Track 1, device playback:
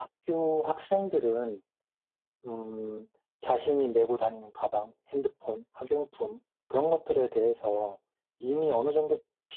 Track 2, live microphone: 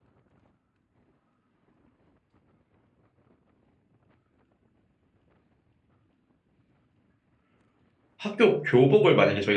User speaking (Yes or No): Yes